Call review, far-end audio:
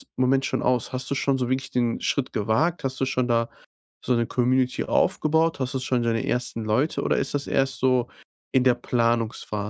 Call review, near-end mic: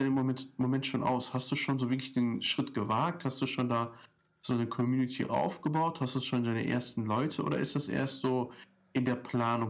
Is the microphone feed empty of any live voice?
Yes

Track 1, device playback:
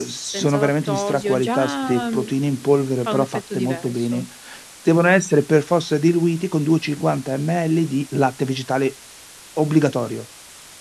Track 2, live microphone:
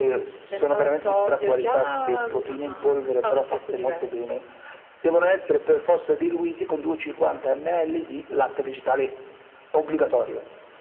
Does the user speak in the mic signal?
Yes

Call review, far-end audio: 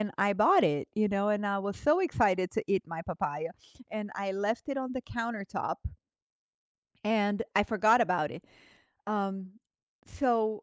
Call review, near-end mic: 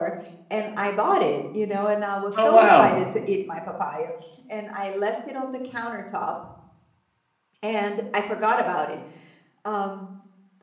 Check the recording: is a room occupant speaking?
Yes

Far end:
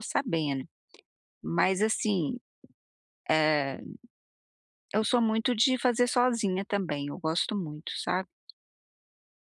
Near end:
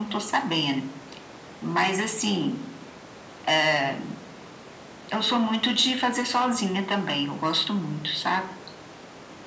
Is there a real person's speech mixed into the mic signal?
No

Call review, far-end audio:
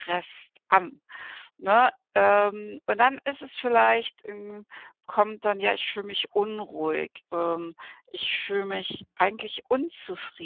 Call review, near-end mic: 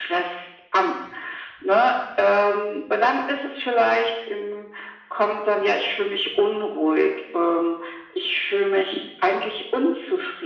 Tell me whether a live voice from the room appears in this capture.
No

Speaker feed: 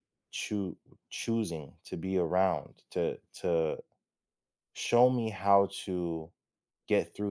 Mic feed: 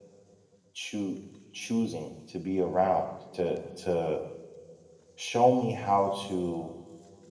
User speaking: No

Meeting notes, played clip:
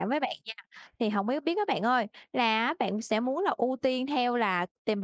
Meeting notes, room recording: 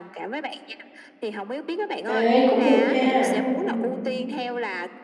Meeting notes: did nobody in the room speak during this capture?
No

